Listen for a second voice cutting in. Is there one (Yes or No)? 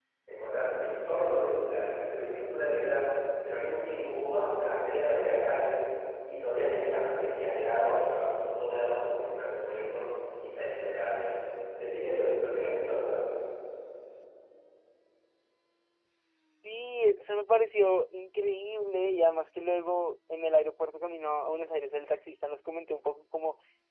No